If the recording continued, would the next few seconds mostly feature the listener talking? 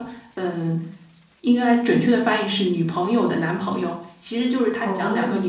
No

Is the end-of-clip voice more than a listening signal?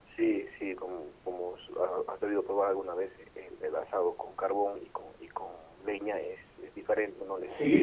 Yes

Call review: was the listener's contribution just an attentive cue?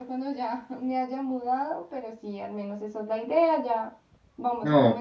Yes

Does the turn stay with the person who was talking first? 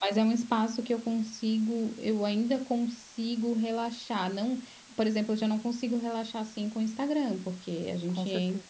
Yes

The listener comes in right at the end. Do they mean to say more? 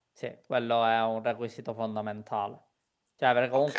No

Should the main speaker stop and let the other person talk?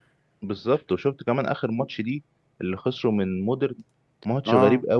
No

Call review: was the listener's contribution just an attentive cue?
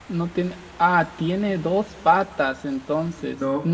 Yes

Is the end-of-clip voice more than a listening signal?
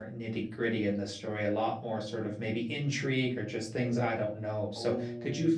Yes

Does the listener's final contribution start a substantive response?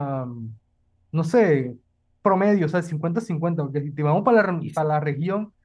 No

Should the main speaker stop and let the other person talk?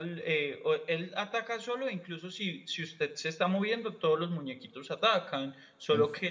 No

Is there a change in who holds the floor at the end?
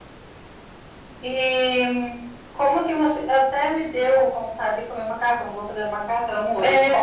Yes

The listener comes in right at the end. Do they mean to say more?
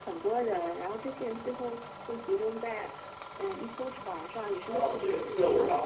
Yes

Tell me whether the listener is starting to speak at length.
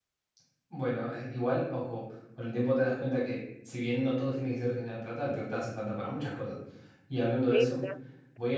No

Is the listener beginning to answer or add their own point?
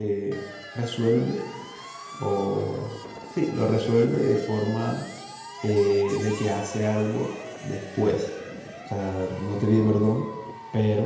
No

